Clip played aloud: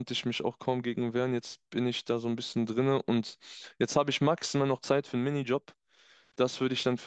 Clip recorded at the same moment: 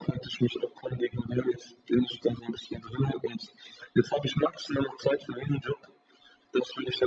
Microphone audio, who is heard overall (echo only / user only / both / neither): echo only